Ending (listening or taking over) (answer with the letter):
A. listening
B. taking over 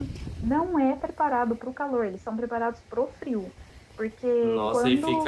B